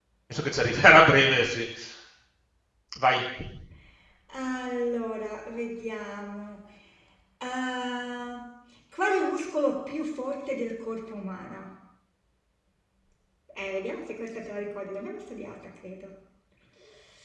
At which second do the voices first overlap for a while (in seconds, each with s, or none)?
none